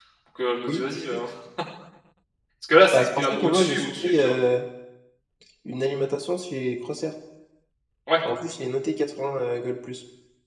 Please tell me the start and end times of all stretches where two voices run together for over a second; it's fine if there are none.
2.9-4.3

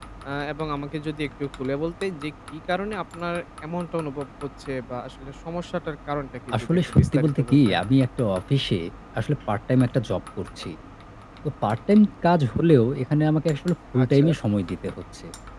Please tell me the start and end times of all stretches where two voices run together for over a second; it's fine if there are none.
6.5-7.8

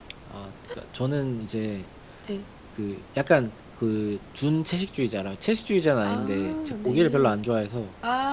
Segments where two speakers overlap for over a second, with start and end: 6.0-7.4

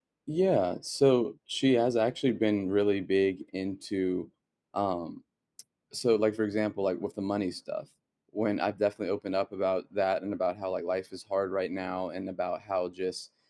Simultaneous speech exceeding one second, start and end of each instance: none

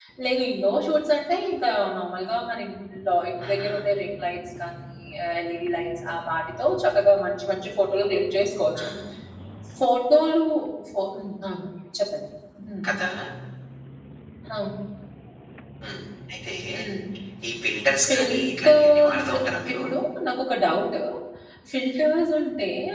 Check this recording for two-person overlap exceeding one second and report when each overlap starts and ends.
18.1-19.3

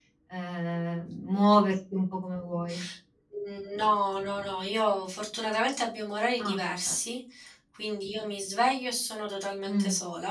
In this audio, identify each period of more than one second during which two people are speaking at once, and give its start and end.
none

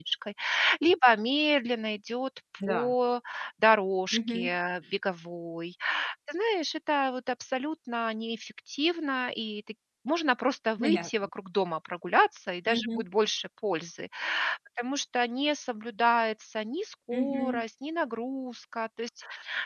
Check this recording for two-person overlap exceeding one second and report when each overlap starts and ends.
none

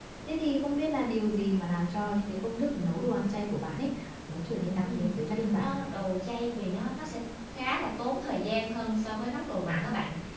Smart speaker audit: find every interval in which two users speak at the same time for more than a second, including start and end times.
none

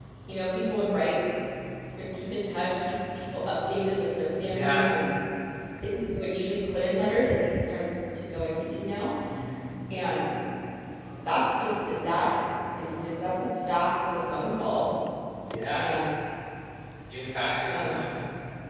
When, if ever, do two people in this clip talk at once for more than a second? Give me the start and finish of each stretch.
none

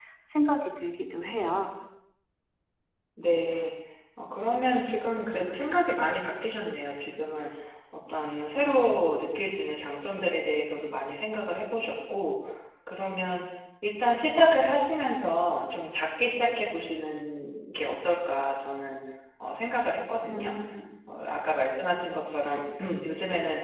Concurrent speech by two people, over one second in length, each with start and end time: none

